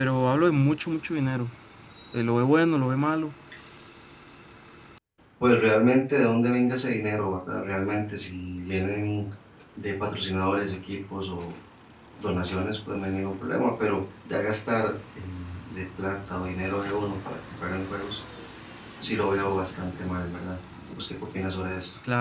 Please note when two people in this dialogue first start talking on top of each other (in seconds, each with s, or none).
none